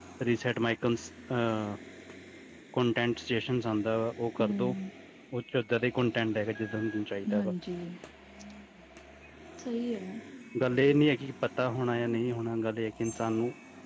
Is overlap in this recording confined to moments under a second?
Yes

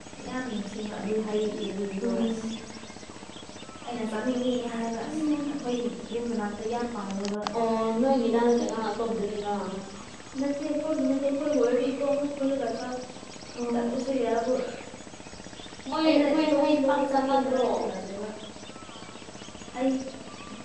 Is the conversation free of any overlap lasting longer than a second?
No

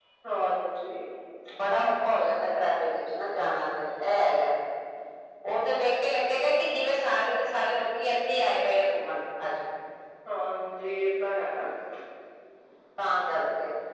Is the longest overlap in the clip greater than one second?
No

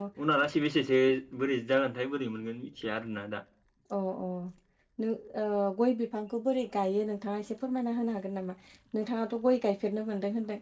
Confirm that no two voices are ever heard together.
Yes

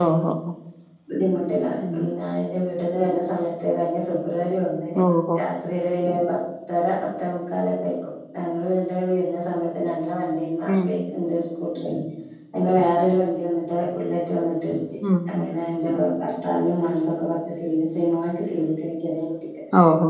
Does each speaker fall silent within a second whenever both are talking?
Yes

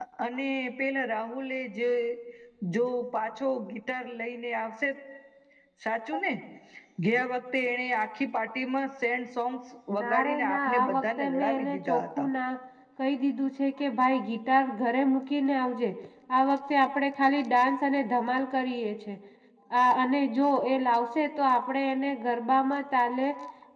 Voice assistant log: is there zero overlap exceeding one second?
No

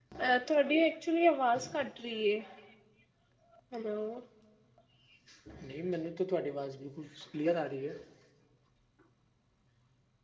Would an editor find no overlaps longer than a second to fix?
Yes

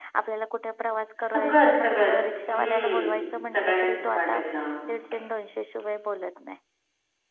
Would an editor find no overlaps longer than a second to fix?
No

